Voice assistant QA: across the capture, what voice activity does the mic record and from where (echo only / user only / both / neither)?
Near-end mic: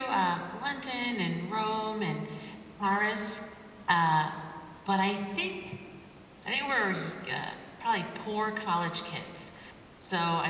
echo only